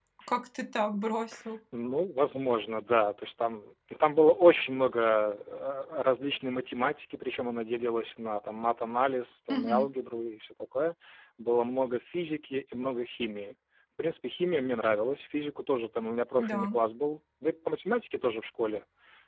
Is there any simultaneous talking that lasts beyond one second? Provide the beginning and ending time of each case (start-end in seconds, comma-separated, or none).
none